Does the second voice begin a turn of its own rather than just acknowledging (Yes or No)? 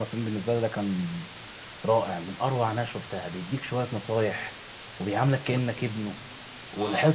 Yes